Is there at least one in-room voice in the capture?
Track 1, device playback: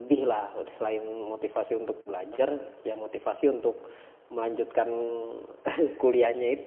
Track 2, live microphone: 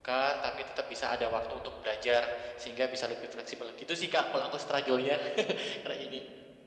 Yes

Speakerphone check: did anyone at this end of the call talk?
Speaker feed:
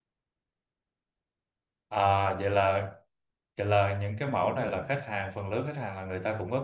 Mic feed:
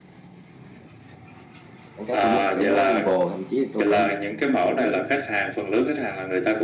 Yes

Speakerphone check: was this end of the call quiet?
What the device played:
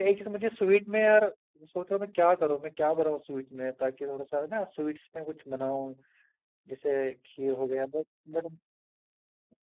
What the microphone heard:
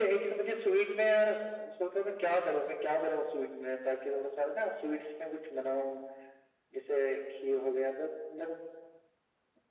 Yes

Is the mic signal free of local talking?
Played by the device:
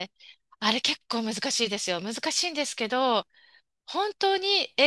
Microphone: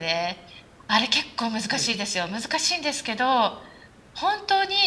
No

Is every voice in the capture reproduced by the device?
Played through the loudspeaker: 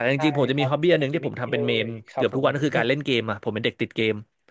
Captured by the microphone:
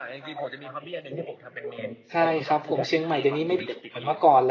No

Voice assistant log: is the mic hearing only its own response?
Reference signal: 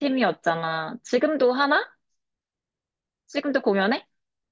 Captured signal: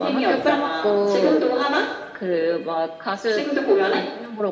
No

